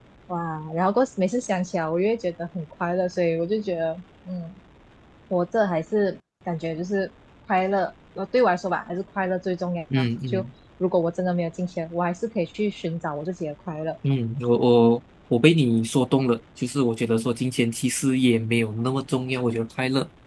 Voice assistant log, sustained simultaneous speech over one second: none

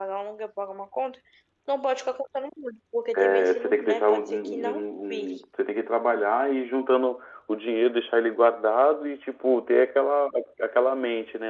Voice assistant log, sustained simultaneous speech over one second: present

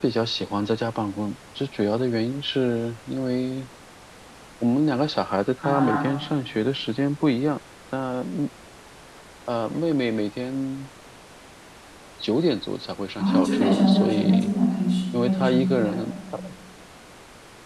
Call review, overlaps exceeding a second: present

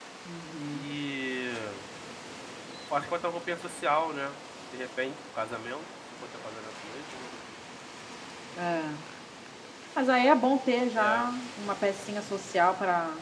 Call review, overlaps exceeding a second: none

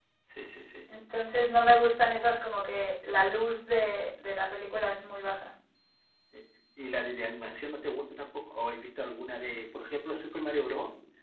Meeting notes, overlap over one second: none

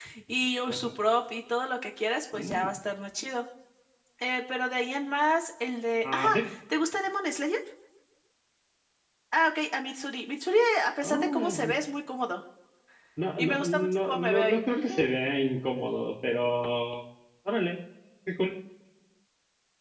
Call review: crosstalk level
present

